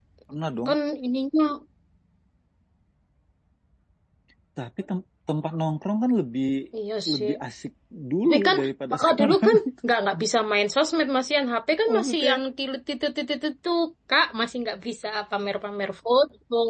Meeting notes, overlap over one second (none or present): present